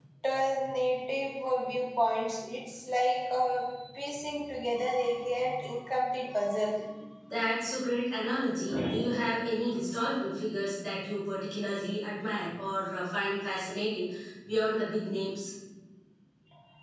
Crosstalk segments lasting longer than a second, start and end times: none

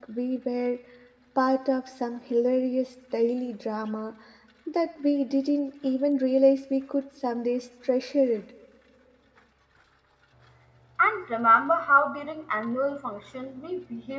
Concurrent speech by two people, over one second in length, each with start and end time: none

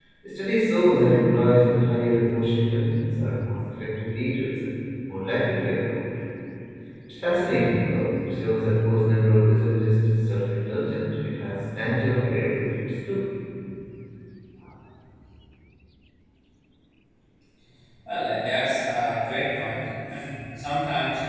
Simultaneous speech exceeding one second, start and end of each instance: none

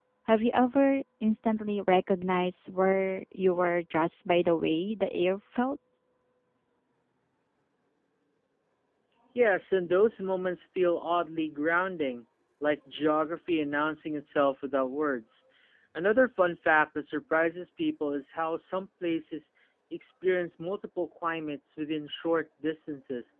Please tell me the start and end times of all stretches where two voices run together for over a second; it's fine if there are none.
none

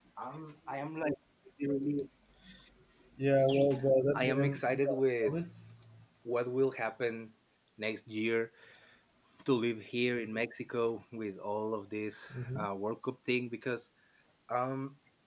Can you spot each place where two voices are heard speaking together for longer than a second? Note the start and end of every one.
4.1-5.4

